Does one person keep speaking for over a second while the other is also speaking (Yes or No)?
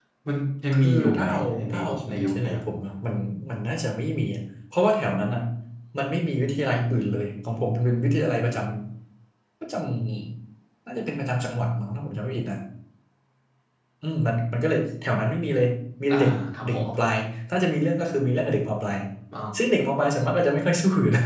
Yes